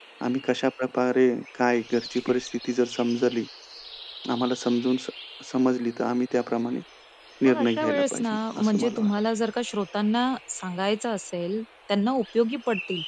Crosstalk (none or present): present